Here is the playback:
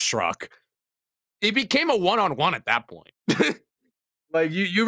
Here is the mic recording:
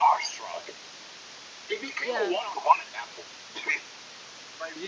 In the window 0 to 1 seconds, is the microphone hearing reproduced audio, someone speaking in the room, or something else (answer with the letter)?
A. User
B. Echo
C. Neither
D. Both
B